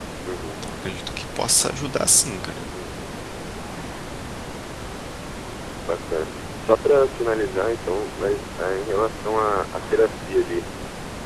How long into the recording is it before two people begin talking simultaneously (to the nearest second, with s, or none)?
none